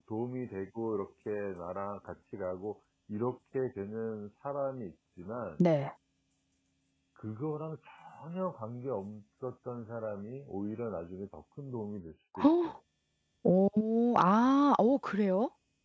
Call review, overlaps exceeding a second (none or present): none